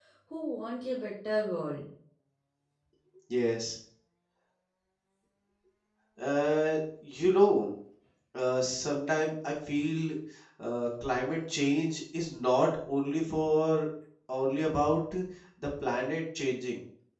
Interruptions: none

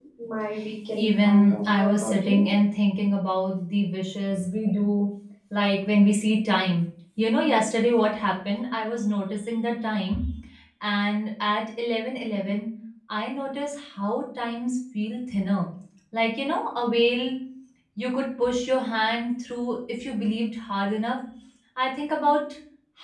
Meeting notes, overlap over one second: present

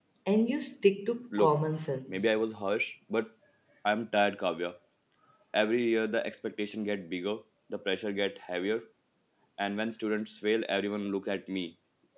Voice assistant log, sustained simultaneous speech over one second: none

